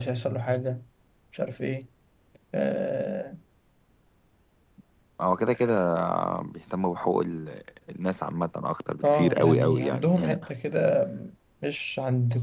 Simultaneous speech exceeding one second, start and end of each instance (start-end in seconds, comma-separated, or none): 9.0-10.4